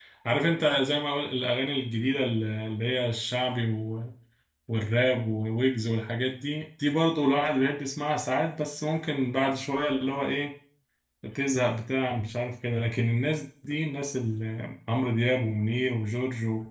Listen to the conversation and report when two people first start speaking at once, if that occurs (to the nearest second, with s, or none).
none